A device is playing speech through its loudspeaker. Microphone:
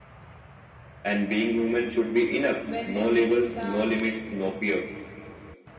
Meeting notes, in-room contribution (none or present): present